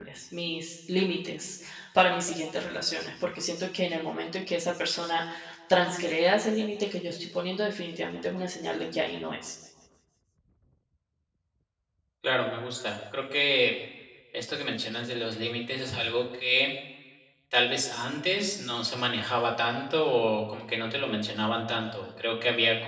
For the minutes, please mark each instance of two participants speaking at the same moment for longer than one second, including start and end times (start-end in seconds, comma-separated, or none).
none